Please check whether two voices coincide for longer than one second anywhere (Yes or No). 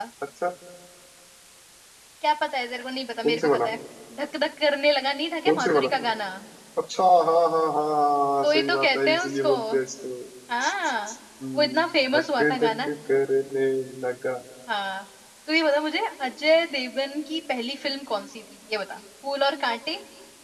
Yes